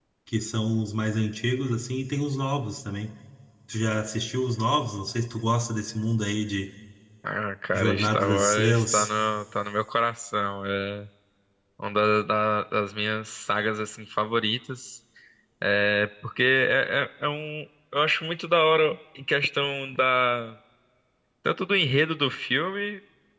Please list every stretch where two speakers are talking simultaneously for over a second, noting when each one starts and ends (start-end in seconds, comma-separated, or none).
7.7-9.1